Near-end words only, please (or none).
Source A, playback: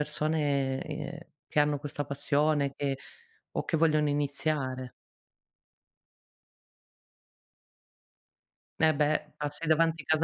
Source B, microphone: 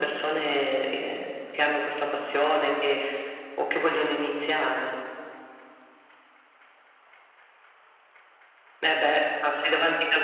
none